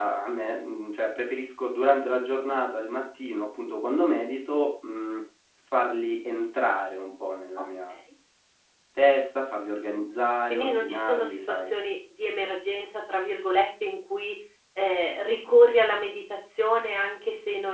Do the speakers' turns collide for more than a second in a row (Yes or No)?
Yes